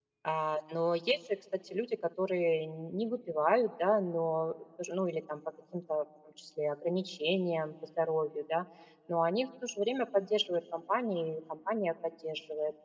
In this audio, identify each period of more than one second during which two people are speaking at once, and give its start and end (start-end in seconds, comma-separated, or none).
none